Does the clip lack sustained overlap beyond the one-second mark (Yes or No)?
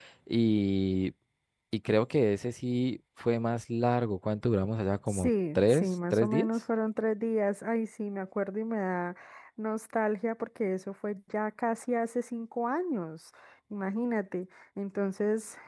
No